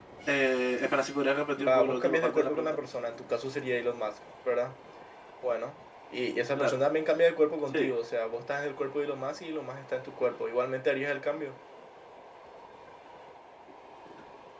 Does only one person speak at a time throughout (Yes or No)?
No